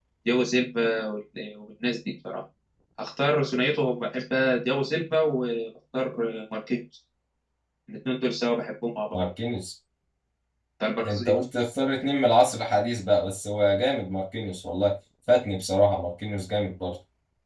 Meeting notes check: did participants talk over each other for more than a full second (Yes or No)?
No